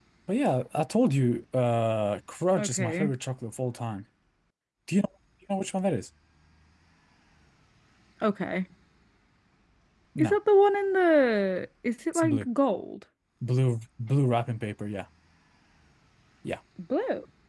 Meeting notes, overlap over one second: none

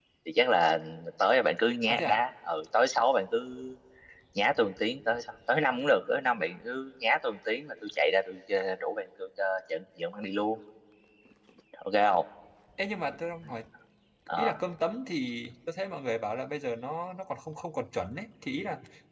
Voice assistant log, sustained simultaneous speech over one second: none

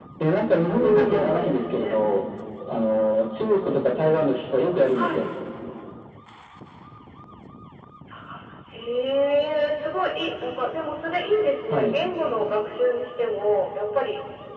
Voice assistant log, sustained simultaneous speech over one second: present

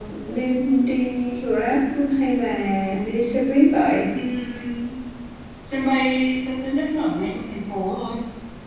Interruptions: none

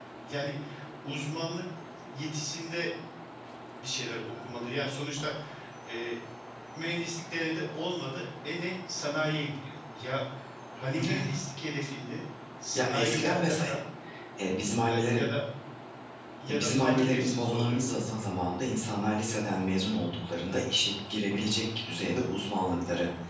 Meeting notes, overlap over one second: present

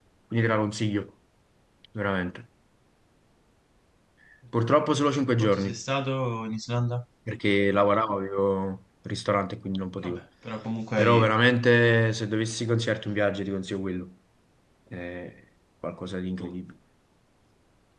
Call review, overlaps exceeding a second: none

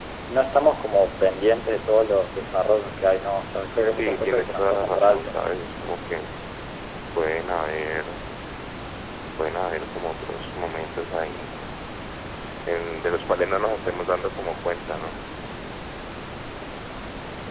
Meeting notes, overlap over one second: present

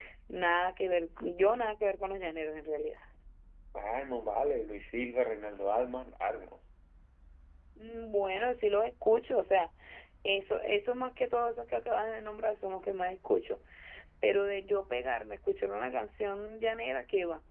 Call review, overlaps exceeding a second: none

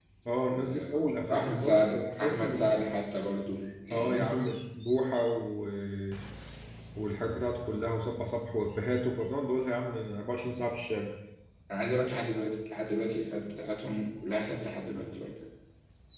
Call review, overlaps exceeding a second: present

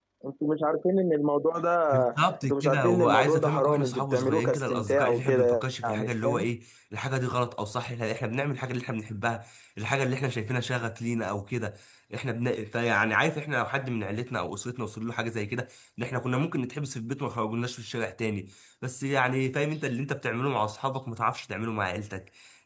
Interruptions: present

